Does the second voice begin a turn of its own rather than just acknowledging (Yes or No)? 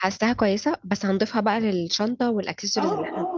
Yes